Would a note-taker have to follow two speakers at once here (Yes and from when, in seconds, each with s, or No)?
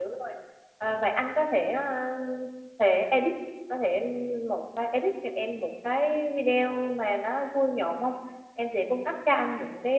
No